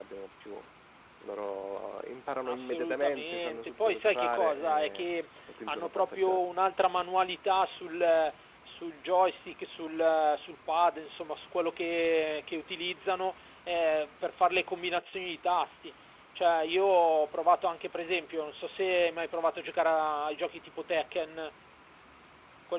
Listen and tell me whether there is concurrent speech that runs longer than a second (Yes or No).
Yes